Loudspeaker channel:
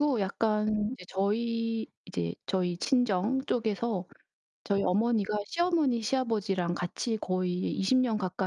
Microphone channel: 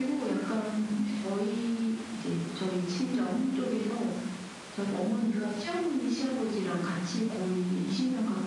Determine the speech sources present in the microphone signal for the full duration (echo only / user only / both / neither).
echo only